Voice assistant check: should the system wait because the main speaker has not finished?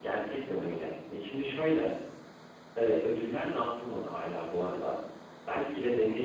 Yes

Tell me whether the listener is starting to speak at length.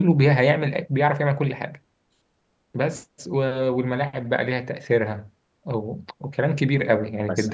No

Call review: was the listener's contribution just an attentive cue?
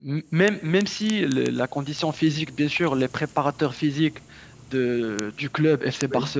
Yes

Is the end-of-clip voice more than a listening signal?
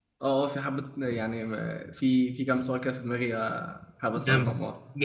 Yes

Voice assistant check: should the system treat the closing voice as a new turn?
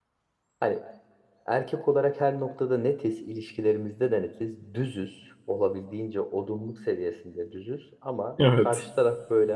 No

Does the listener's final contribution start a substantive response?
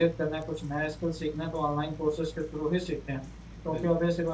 No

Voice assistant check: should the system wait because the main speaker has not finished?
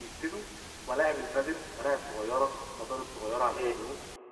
Yes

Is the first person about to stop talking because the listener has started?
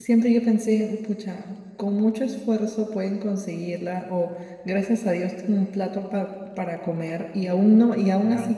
No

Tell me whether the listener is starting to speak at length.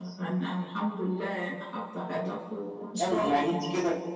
Yes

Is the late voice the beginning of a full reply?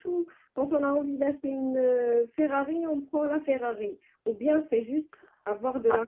Yes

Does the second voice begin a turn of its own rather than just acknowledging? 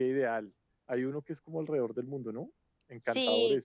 Yes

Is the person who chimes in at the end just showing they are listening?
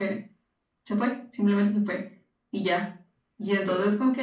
Yes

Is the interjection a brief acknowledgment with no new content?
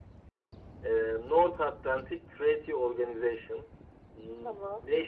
Yes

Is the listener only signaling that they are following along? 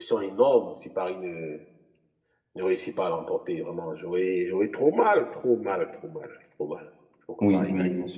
No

